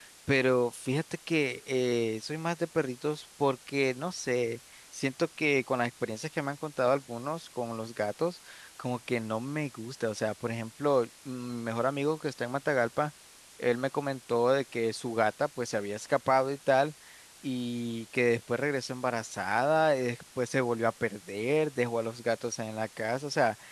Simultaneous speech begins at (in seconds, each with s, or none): none